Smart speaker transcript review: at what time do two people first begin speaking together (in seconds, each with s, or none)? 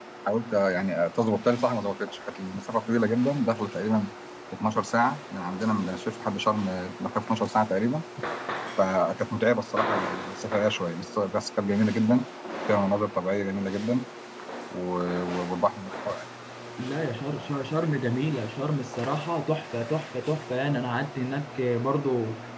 none